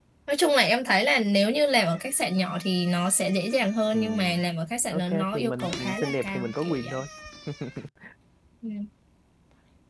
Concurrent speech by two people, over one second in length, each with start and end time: 4.9-7.0

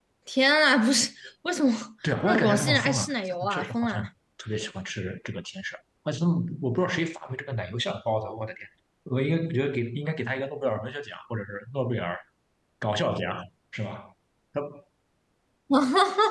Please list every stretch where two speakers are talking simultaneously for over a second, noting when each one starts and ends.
2.3-4.1

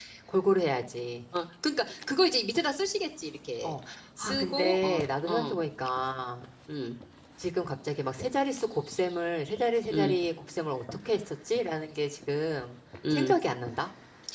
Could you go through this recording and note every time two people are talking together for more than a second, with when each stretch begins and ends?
4.2-5.6

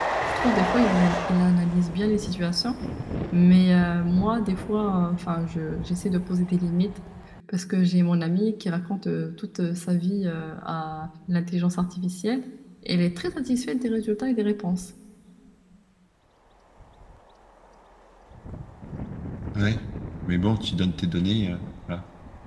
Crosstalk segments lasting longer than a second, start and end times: none

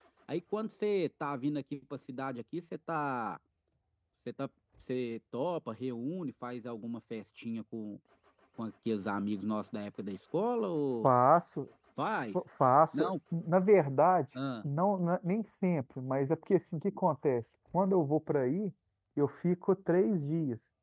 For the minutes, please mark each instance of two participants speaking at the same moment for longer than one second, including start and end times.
none

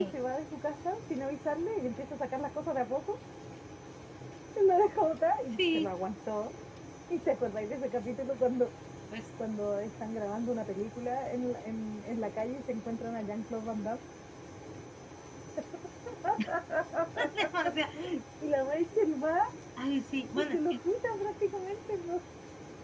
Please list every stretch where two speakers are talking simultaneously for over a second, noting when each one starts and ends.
none

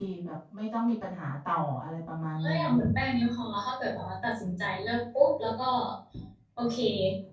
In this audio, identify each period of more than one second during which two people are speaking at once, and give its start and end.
none

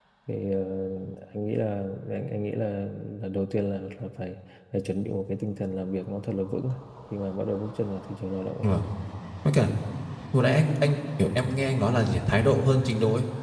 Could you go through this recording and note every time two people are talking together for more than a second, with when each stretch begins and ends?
none

